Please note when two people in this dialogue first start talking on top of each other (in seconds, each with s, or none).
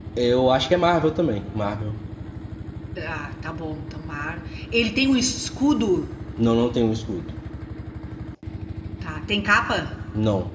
none